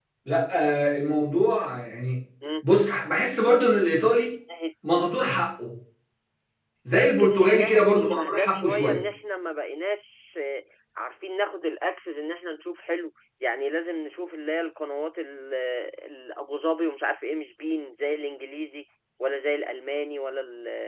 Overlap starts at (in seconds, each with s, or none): 6.9 s